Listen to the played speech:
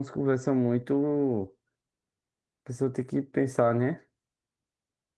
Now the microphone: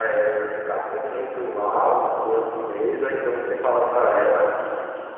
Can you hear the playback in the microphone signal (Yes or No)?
No